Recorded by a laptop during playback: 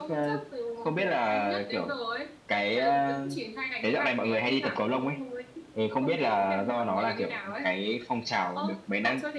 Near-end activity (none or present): present